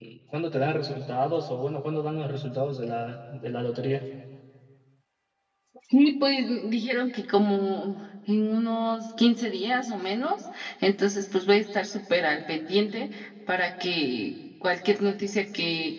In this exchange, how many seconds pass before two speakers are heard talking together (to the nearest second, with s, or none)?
none